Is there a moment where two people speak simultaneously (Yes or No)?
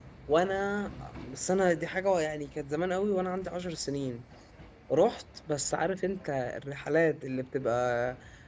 No